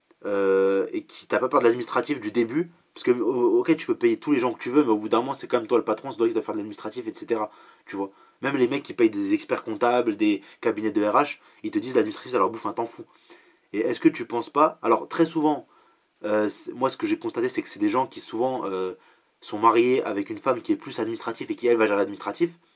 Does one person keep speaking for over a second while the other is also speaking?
No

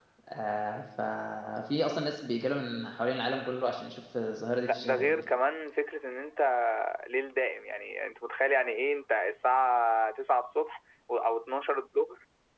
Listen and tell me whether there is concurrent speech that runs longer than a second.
No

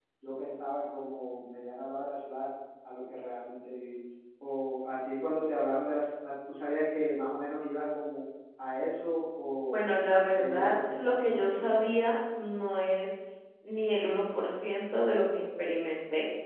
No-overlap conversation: No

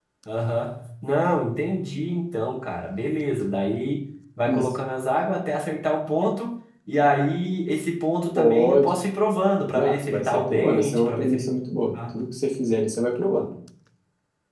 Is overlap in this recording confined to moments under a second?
No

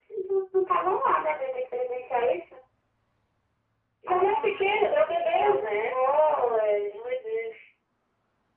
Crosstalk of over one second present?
Yes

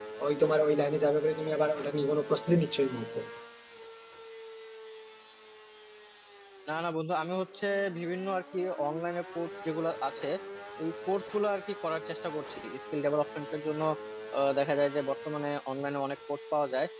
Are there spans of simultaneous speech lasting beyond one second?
No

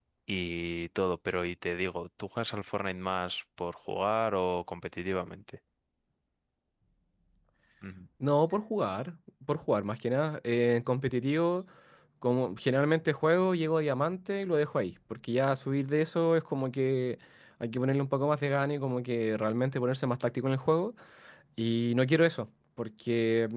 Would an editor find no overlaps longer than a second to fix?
Yes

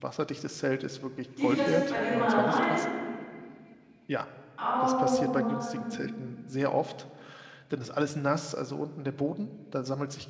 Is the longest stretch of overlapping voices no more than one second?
No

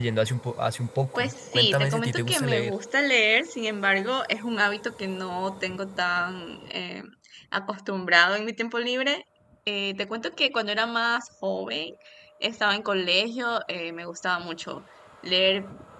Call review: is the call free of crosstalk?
No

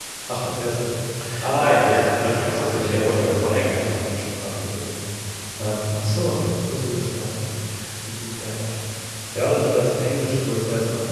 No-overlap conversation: No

